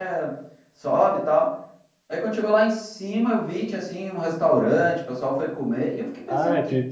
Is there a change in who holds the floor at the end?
Yes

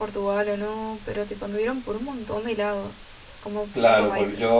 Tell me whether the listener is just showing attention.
No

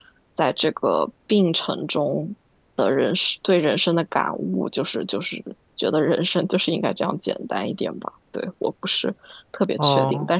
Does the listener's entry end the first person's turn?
No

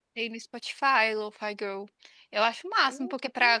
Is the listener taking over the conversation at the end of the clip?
No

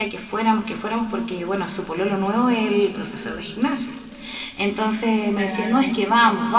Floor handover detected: No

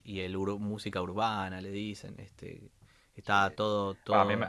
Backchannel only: No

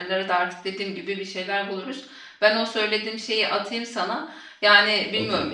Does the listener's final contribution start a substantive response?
No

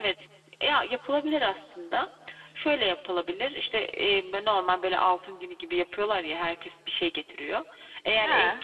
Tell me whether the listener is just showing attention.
Yes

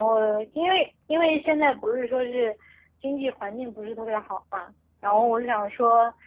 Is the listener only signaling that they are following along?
Yes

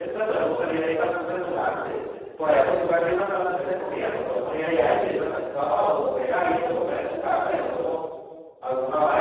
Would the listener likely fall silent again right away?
No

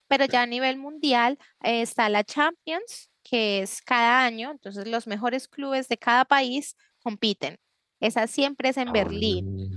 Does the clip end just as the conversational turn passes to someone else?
No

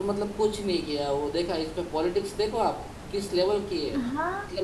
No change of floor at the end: No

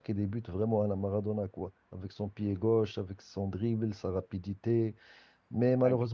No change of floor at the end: Yes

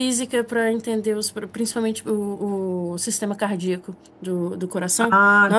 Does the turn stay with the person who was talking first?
Yes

